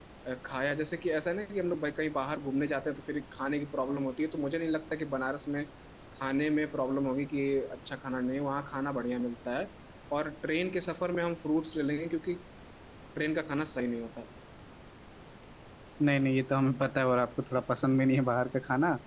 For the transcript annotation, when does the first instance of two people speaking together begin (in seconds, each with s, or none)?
none